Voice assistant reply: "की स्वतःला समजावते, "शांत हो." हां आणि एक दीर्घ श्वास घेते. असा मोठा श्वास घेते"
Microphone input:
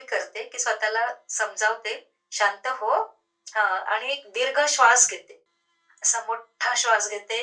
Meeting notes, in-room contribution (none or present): none